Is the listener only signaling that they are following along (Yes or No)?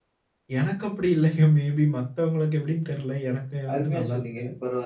No